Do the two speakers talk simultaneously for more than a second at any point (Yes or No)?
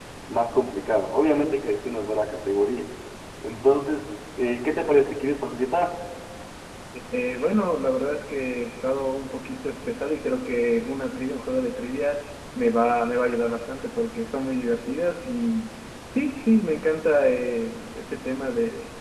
No